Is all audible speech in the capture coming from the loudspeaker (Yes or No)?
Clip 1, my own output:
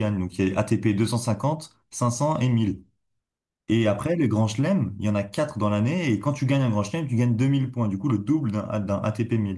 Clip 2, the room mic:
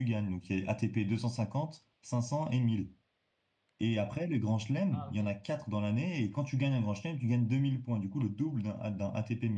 No